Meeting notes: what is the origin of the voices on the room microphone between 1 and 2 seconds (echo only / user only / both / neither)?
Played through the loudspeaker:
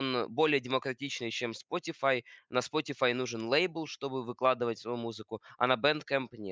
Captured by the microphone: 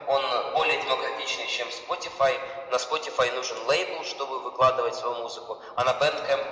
echo only